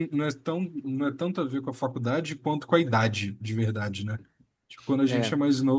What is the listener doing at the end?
listening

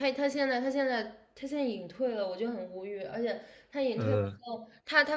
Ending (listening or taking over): listening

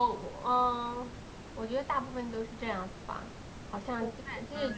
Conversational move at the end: listening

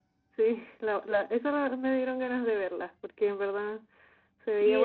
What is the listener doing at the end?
taking over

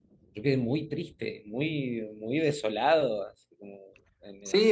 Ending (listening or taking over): taking over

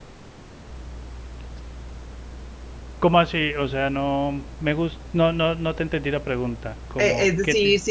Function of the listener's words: taking over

